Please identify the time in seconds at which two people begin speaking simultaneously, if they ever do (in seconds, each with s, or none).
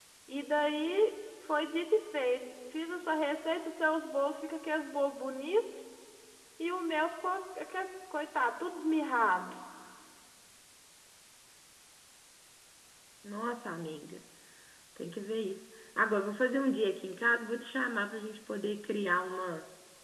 none